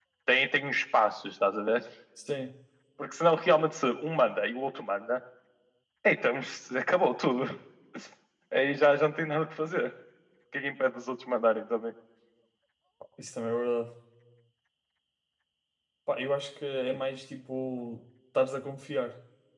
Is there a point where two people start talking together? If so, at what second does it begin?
none

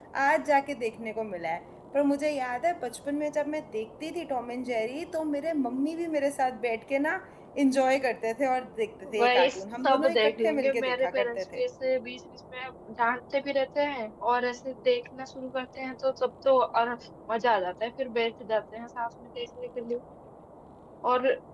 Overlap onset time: 9.1 s

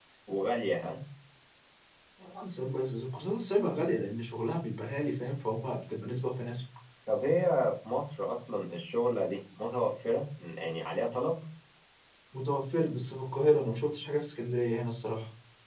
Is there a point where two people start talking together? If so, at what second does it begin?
none

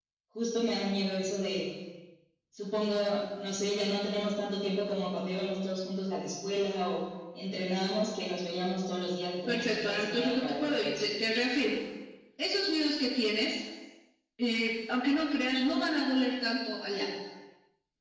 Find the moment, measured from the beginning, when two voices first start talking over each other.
9.5 s

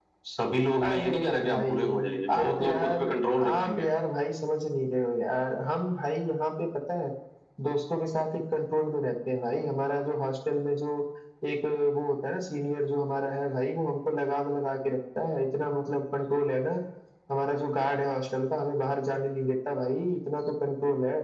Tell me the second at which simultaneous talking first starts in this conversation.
0.8 s

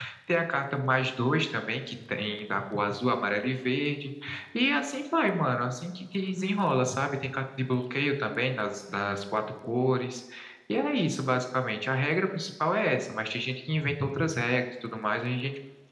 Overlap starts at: none

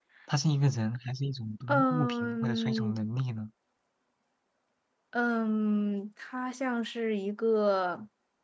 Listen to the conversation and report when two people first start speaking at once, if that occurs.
1.7 s

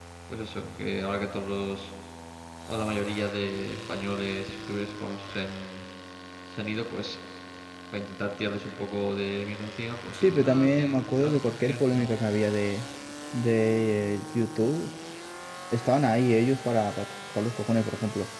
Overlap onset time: 10.1 s

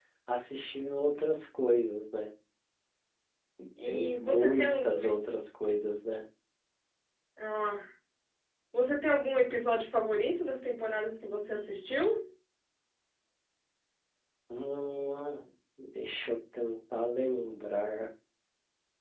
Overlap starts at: 3.9 s

